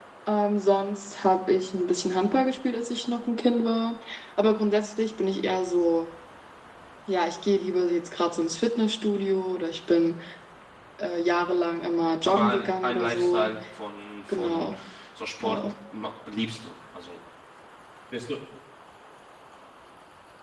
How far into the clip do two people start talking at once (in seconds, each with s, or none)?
12.2 s